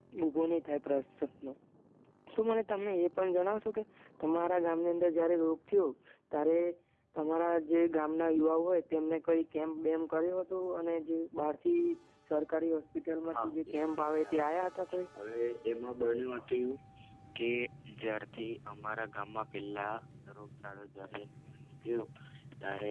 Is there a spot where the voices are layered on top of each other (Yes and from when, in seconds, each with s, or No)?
Yes, from 13.2 s